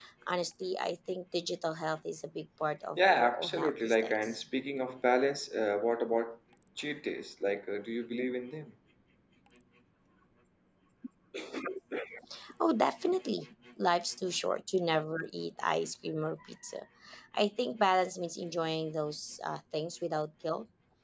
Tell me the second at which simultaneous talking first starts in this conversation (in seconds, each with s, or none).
3.0 s